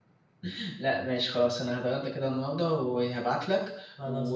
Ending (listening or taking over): listening